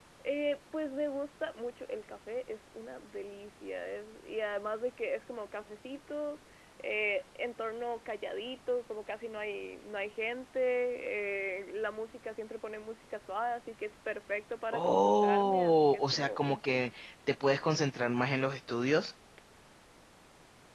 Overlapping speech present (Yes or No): Yes